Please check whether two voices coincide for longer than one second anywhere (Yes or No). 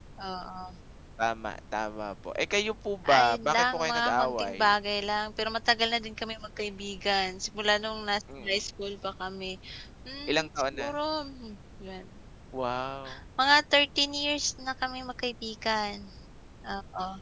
Yes